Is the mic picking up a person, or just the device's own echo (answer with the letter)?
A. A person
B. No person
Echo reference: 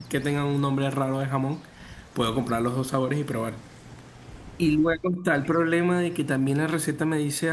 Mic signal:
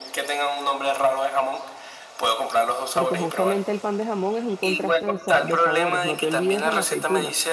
A